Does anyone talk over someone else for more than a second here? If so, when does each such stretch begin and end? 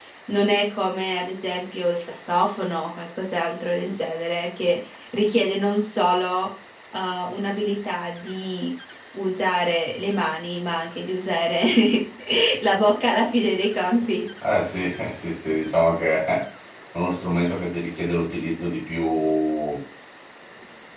none

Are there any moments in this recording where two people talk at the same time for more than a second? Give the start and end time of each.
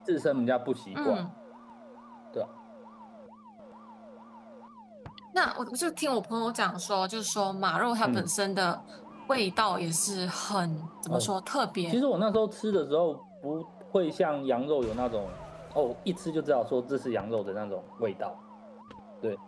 none

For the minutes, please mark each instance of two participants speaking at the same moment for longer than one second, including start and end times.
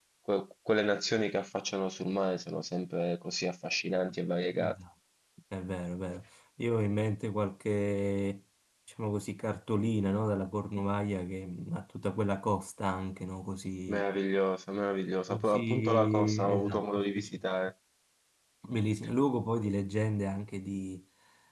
15.3-17.4

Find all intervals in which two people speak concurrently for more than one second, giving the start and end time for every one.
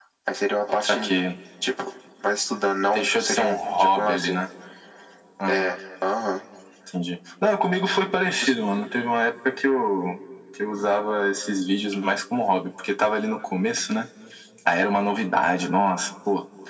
2.9-4.4

